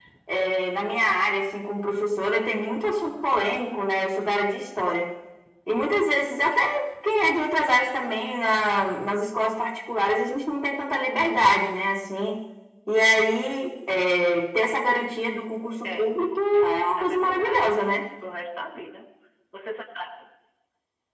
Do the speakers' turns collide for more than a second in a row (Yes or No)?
Yes